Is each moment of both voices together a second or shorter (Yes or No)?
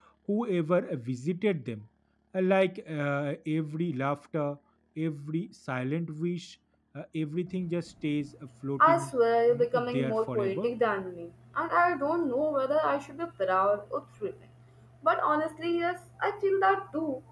No